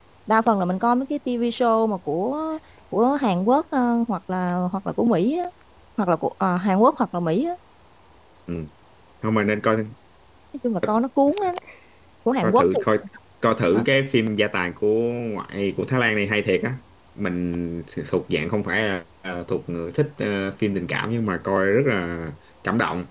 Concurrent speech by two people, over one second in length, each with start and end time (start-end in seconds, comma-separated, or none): none